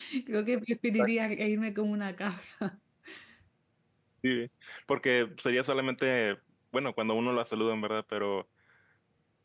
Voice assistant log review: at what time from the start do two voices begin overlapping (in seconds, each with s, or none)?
none